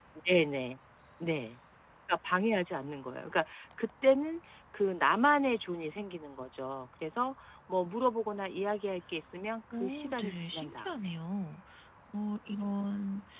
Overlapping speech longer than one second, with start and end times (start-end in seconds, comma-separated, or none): 9.7-11.0